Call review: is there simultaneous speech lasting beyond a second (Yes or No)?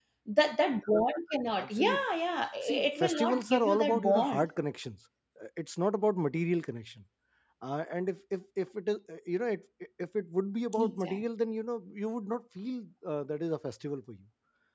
Yes